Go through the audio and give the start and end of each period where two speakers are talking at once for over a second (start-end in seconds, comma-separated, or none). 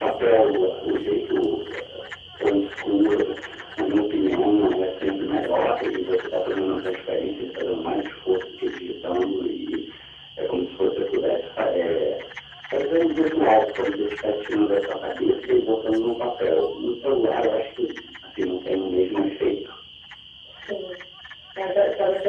none